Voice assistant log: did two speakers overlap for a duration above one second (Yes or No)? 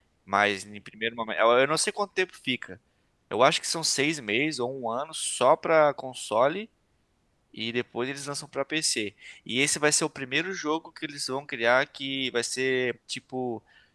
No